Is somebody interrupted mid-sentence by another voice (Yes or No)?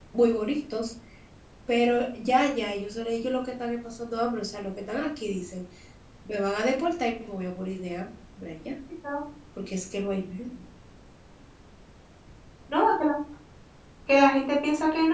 No